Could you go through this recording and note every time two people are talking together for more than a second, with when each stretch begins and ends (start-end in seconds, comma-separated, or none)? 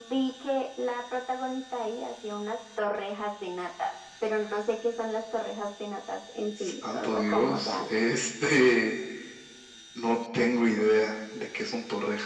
6.6-8.1